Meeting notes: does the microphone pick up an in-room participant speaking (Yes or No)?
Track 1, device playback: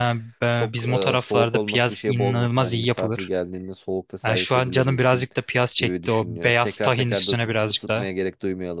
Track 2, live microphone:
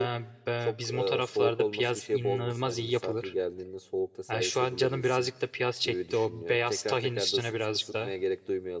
No